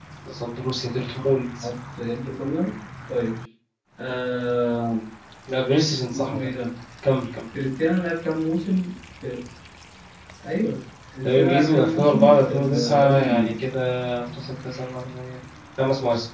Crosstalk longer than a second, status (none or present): present